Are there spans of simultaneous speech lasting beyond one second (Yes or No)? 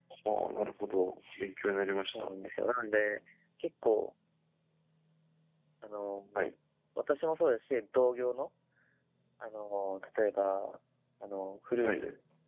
No